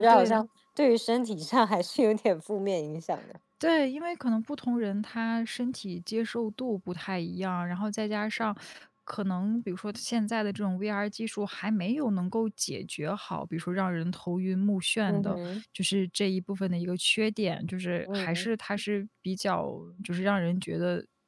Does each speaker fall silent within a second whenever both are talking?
Yes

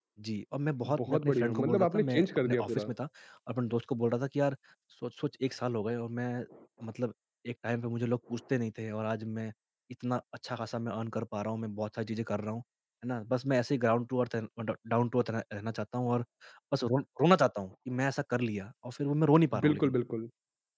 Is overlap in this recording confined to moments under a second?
No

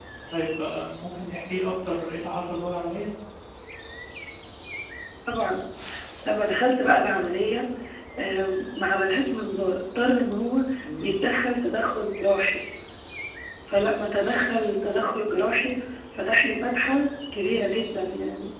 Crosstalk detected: No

